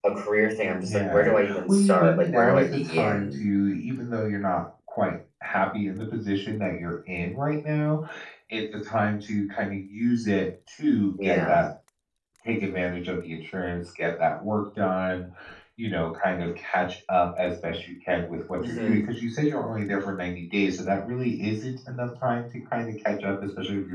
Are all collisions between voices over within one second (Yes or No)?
No